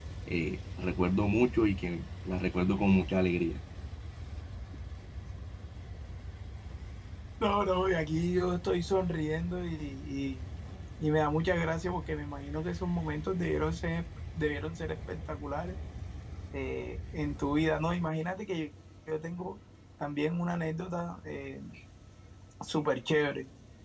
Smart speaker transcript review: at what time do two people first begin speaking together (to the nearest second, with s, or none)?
none